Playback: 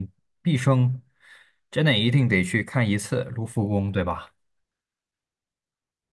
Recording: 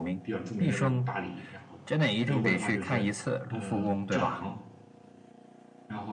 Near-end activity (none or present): present